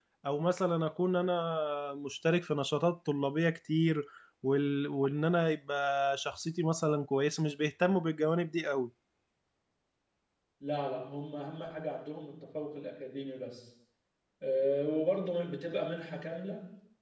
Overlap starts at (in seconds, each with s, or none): none